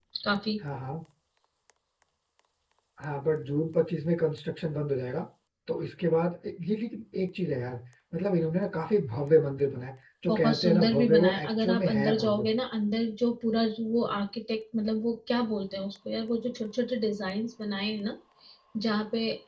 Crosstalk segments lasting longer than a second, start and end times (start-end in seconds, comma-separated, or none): 10.3-12.4